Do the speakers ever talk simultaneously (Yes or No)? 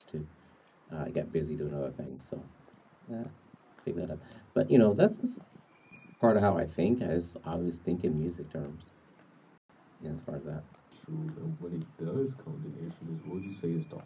No